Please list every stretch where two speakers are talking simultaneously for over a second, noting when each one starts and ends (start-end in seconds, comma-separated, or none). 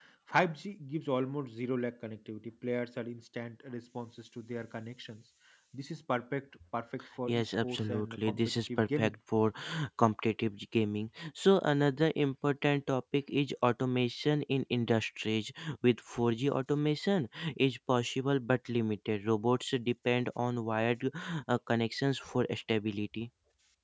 7.3-9.2